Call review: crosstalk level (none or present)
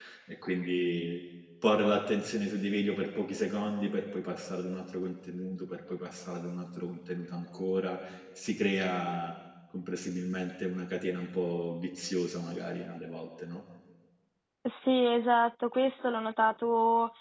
none